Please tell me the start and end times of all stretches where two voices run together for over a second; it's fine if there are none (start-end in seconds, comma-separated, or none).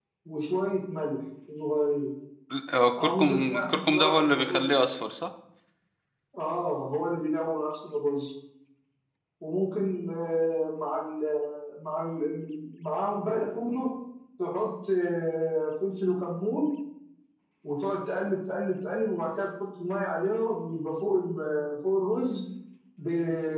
3.0-4.7